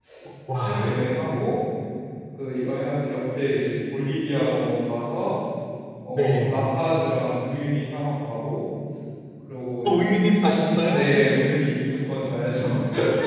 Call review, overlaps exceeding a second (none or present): none